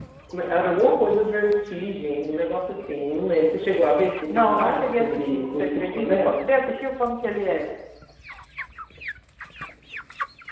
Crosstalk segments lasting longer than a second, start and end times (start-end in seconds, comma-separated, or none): 4.3-6.4